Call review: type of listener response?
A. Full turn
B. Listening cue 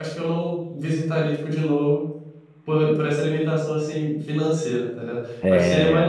B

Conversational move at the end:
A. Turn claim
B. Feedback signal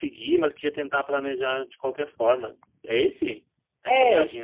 A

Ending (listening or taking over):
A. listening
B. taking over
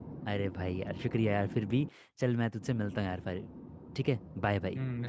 B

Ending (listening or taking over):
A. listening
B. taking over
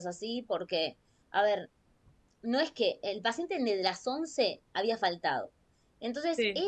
A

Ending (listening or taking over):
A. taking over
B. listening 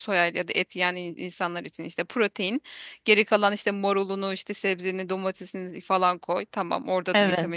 B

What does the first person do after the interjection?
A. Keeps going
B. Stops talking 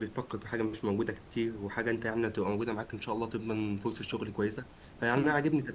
A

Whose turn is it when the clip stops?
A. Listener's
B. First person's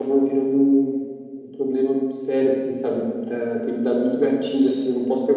B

